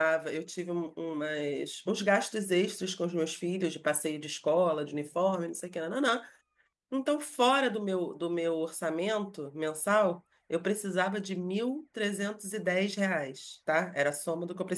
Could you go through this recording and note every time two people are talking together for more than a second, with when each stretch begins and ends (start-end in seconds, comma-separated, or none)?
none